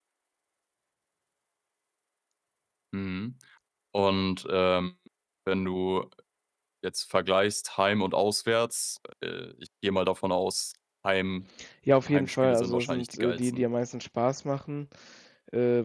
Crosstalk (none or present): present